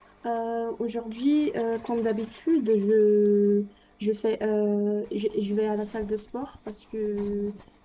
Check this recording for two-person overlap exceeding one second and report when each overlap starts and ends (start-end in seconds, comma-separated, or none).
none